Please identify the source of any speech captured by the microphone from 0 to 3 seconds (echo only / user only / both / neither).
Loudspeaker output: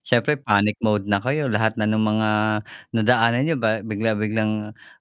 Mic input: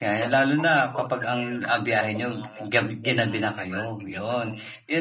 both